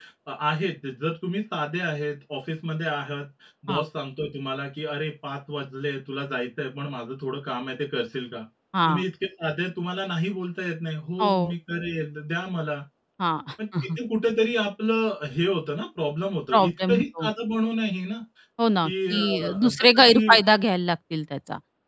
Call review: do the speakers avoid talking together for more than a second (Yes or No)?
No